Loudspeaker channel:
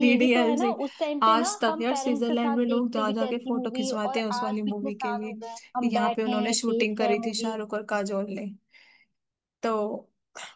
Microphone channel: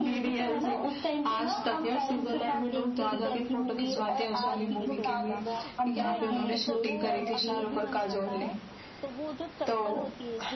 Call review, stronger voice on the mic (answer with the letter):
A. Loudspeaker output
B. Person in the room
A